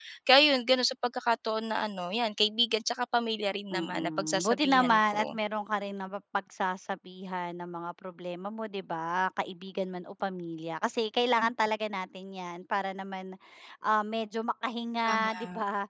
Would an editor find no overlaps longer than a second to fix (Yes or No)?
No